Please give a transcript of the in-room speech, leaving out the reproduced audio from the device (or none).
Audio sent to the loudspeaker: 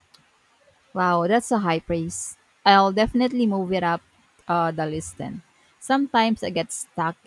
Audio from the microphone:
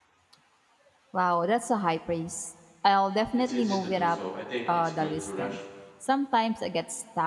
It's easy to do so. I think it's good to rush